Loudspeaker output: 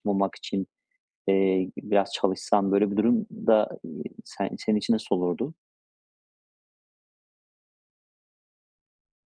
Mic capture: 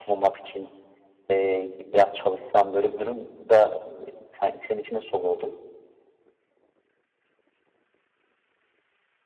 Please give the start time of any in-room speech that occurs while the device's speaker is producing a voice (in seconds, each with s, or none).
none